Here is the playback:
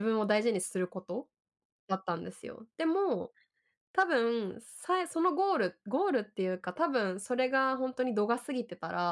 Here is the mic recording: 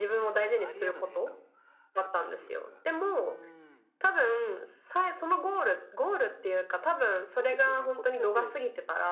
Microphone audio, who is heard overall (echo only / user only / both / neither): both